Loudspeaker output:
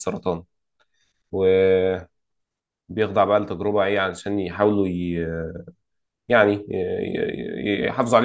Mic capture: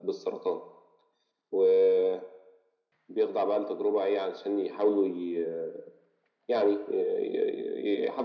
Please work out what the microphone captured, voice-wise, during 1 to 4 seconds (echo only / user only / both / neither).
echo only